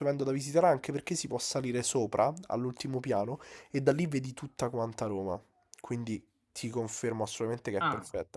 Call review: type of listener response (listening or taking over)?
listening